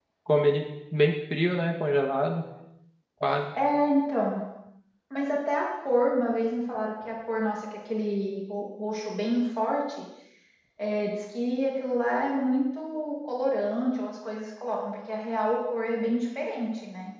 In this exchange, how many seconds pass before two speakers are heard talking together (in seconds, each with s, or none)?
none